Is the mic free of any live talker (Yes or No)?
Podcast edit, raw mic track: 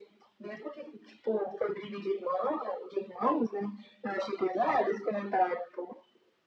Yes